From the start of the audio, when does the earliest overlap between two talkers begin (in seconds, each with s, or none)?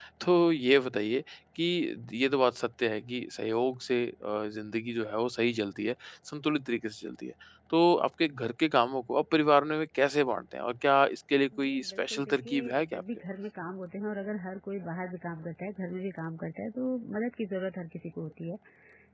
11.5 s